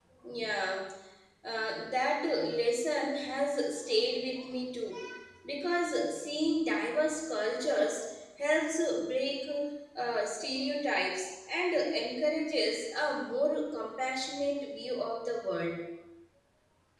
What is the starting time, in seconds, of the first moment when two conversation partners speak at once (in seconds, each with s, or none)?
none